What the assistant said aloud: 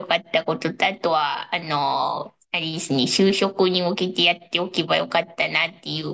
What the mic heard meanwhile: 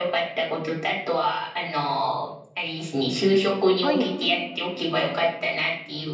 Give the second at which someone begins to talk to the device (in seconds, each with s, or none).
3.8 s